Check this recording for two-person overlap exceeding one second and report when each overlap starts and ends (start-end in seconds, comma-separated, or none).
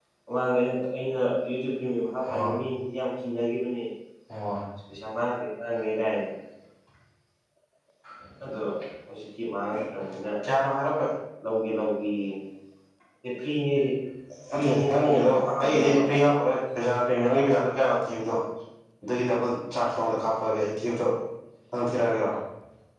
14.6-16.0